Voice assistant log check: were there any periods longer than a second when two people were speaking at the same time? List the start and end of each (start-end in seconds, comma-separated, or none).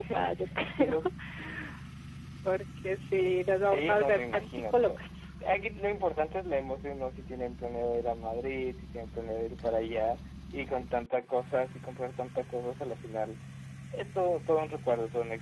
3.7-4.9